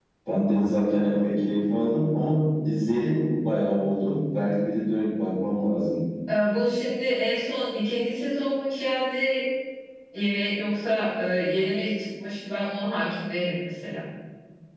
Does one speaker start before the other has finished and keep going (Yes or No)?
No